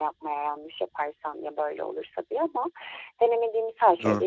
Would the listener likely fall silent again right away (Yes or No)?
Yes